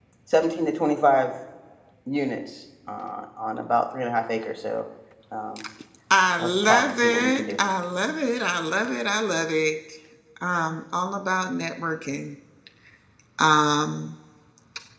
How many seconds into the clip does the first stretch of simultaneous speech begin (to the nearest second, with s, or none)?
6 s